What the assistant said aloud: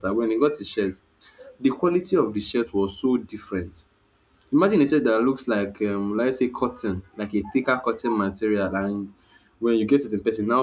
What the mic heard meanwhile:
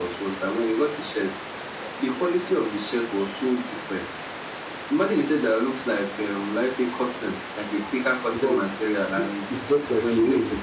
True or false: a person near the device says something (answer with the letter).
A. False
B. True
B